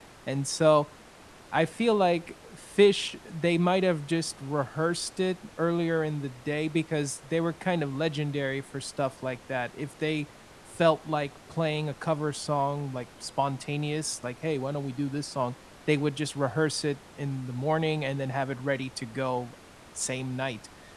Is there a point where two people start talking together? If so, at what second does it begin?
none

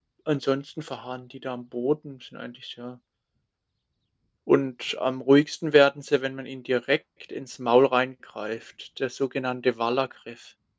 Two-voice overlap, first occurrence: none

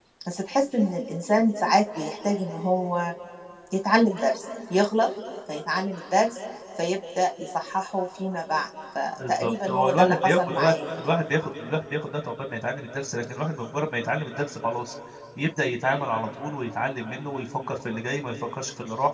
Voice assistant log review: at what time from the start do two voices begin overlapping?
9 s

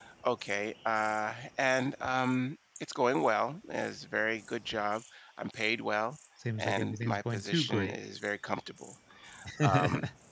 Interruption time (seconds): 7 s

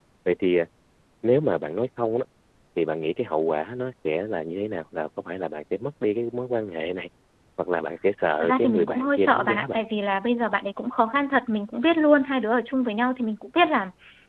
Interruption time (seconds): 8 s

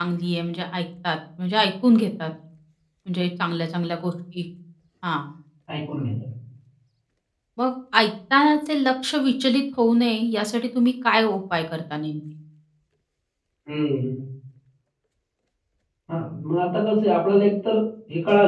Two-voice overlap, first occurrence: none

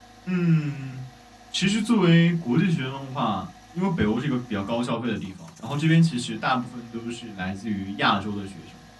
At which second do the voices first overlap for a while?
none

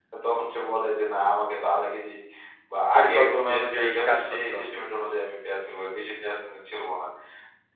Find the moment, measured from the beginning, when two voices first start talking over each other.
3 s

